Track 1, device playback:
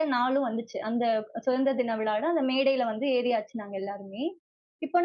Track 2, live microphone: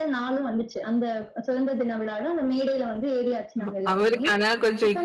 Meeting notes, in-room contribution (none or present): present